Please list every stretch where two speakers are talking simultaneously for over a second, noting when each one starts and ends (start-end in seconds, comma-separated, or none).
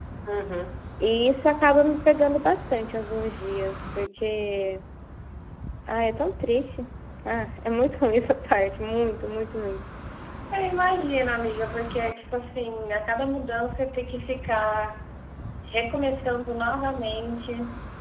none